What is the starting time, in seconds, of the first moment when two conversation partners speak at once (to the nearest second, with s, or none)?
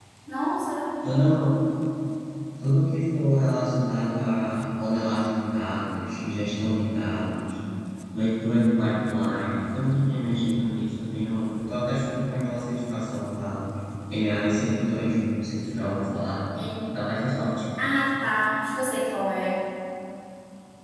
none